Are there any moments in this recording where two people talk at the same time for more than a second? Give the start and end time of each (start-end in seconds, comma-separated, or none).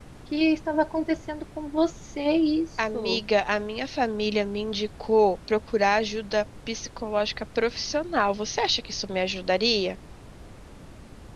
none